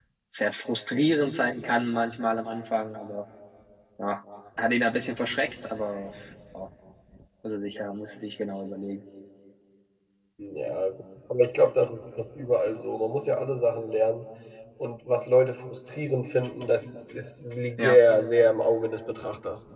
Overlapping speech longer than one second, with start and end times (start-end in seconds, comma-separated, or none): none